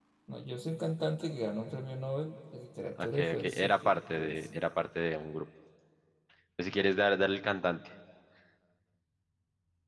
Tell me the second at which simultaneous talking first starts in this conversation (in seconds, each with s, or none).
3.0 s